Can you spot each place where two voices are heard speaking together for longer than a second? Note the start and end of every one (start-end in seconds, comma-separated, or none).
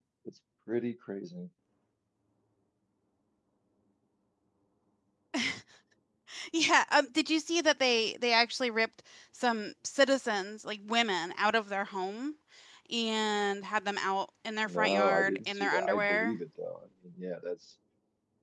14.7-16.4